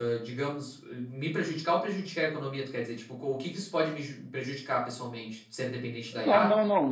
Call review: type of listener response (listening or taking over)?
taking over